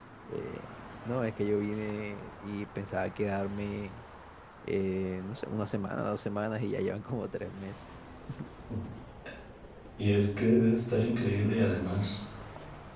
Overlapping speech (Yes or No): No